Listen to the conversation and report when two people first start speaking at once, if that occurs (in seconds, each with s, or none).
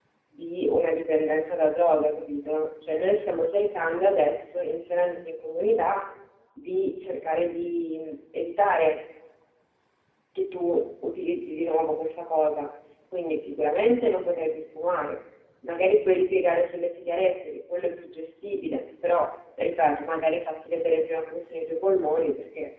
none